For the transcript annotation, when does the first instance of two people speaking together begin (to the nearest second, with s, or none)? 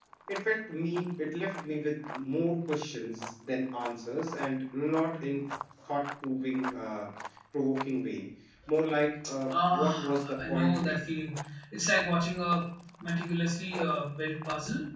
9 s